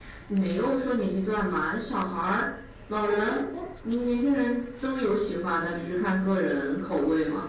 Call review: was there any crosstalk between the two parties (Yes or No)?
No